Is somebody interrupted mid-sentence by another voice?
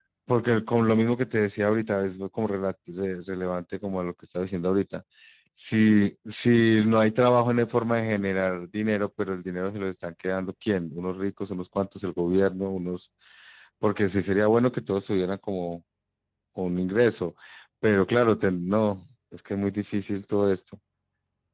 No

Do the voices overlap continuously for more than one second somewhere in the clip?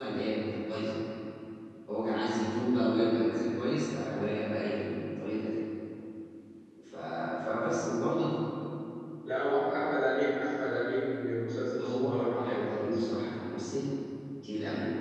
Yes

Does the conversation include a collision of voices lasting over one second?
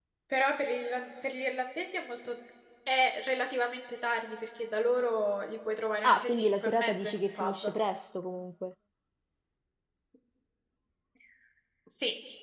Yes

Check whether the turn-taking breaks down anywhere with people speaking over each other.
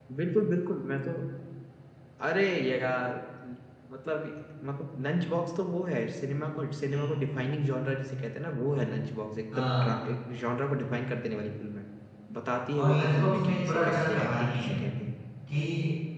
Yes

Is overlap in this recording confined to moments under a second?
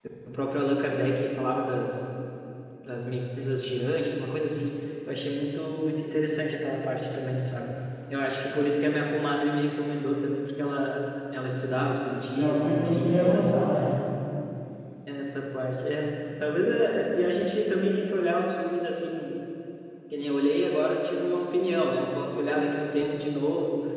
No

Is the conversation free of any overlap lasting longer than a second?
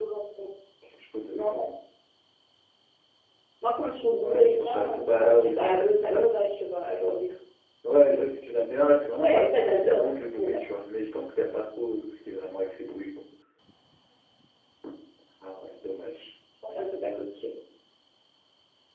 No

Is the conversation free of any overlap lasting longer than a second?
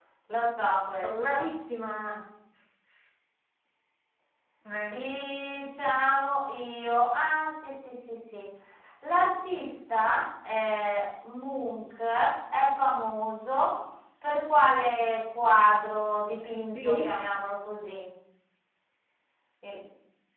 Yes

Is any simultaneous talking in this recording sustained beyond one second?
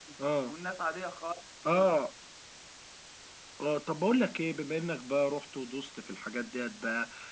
No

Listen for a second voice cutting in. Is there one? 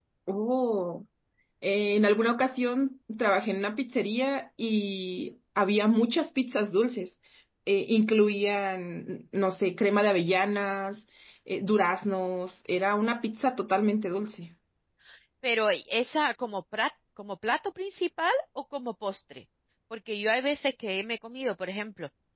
No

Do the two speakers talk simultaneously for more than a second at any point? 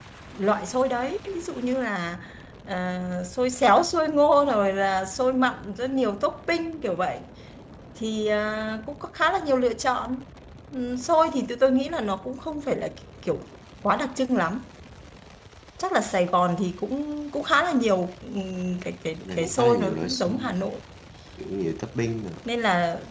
Yes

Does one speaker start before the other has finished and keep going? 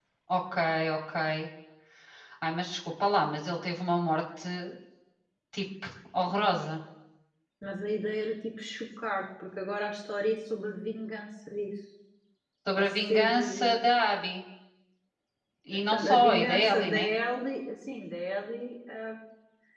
Yes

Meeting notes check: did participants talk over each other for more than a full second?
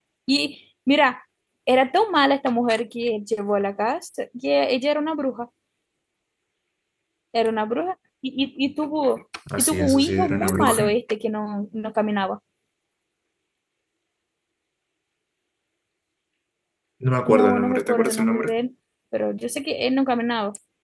Yes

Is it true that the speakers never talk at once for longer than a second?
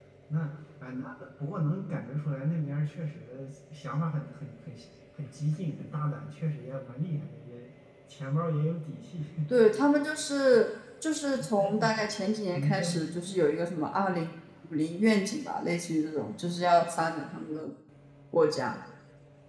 Yes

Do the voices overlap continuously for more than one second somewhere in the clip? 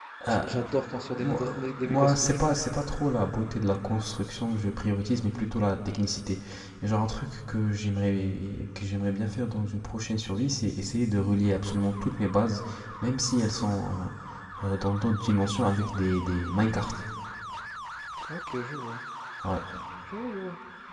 Yes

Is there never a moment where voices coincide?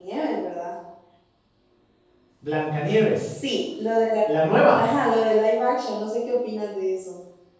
Yes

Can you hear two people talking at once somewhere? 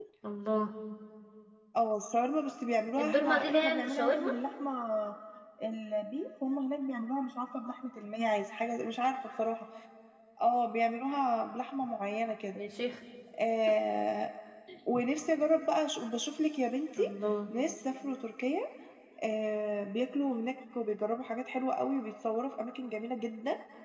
Yes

